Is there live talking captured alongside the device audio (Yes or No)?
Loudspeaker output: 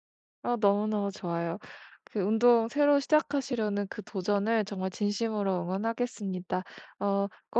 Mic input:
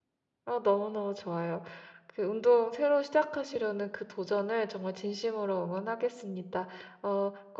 No